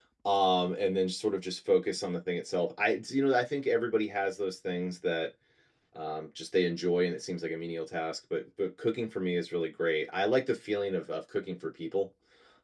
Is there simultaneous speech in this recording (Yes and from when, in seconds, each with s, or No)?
No